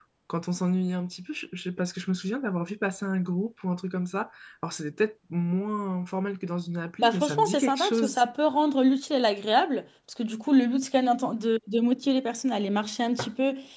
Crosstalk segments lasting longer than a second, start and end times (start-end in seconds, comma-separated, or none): 7.0-8.2